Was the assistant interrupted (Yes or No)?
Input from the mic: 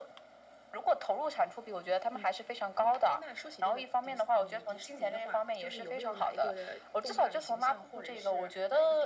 No